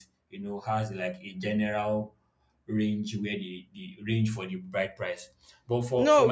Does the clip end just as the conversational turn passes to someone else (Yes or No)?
Yes